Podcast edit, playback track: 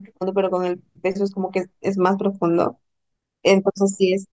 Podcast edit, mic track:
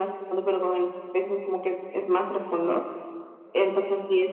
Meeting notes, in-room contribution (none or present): none